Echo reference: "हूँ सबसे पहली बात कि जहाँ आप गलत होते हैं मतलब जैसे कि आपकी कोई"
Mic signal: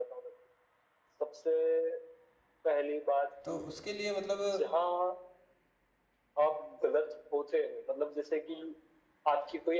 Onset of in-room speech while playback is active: 3 s

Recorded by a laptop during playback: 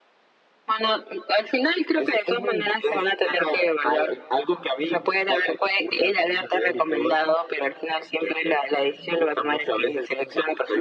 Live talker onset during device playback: none

